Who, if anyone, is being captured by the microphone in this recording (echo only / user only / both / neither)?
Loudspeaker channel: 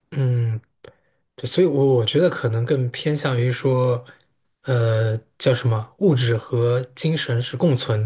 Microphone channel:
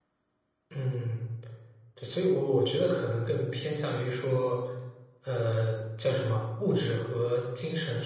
echo only